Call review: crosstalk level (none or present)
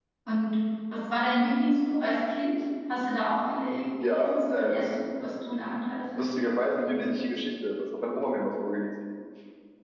present